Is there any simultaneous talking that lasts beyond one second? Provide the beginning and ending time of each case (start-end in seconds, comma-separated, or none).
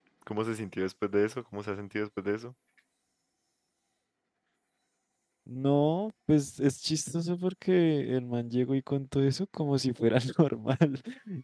none